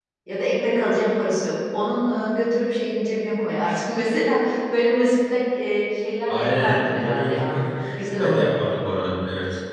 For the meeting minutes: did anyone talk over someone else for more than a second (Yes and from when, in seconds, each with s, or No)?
Yes, from 6.3 s